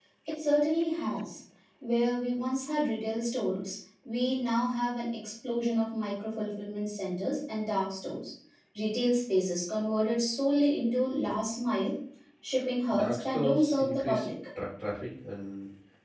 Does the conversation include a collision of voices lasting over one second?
Yes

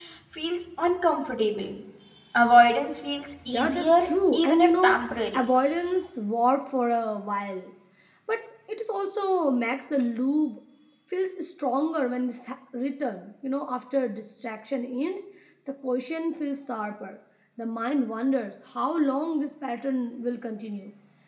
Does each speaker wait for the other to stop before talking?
No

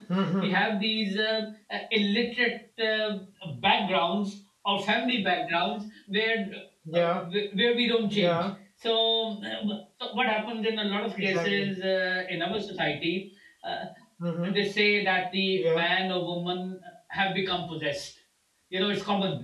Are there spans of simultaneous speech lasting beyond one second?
No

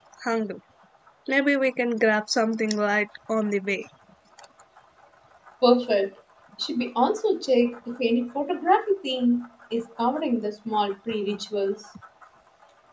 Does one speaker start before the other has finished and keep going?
No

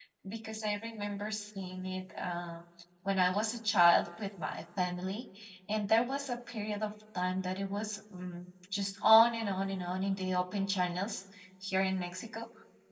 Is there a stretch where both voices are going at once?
No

